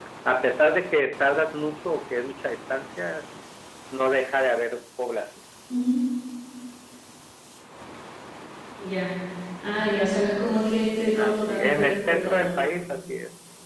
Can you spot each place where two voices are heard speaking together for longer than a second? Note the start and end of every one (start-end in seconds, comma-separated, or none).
11.2-12.6